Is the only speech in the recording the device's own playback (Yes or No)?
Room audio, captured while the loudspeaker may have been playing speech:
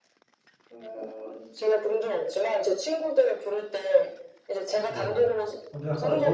No